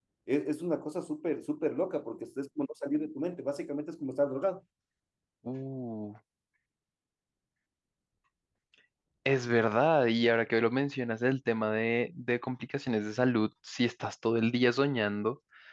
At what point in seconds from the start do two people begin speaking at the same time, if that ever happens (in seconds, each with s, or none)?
none